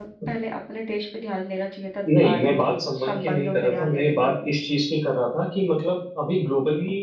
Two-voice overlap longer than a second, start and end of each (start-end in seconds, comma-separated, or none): 2.2-4.3